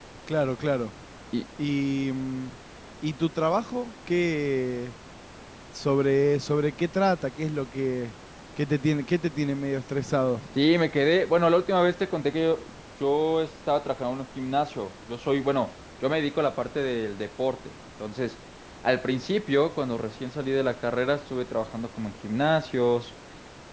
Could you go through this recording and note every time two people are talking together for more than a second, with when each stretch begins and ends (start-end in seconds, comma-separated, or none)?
none